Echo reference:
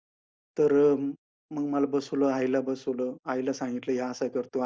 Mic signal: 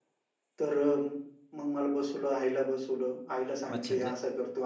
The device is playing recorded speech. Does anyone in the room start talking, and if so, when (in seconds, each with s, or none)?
3.7 s